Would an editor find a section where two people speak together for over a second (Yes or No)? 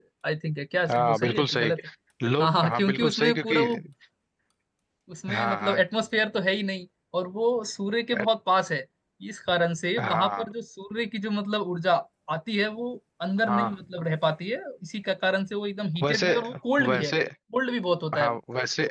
Yes